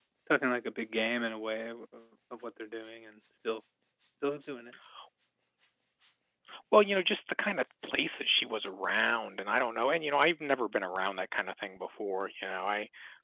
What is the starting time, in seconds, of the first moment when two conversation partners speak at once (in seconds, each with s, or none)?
none